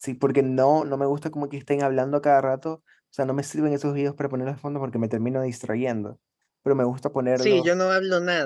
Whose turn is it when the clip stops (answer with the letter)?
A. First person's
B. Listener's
B